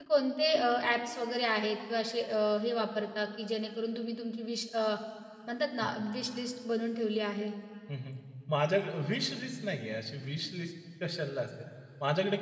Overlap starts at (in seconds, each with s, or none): none